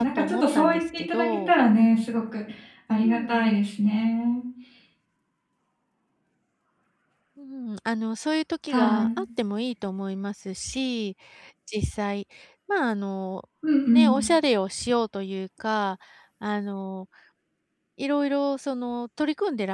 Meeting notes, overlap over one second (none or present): present